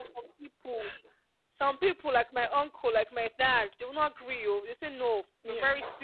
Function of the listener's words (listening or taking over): listening